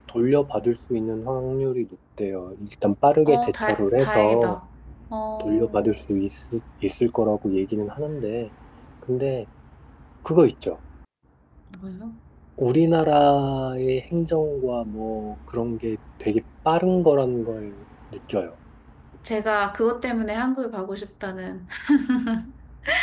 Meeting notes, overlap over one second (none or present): present